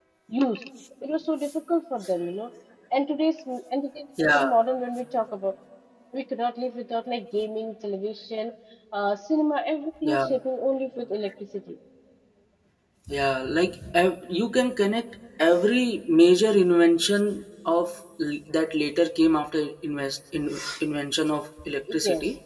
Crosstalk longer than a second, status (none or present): none